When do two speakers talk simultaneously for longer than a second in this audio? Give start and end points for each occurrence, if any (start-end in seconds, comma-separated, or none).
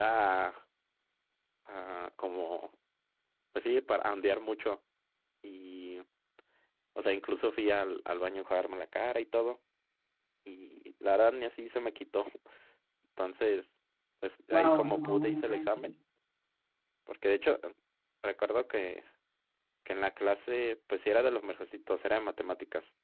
14.5-15.9